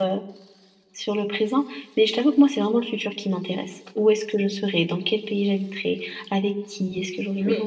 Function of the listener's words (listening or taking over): taking over